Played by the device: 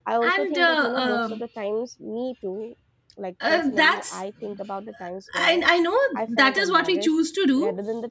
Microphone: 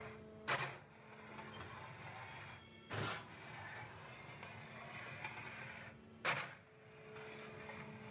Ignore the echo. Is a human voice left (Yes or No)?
No